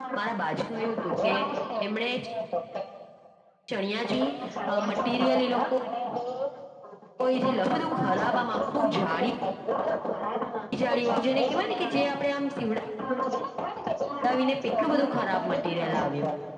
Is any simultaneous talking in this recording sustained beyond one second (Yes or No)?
Yes